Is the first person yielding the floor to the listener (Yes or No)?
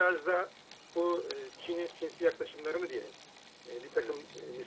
No